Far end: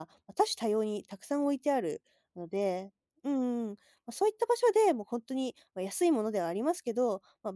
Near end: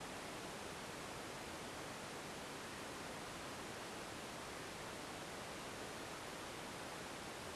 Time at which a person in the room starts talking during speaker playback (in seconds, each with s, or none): none